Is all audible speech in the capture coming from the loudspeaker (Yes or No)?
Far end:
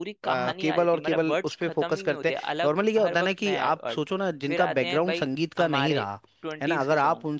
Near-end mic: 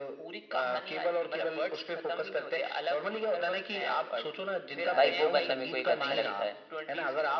No